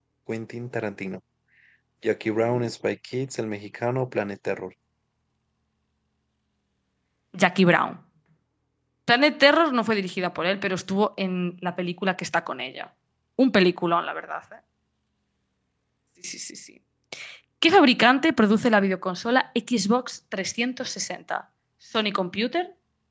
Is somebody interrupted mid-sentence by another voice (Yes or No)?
No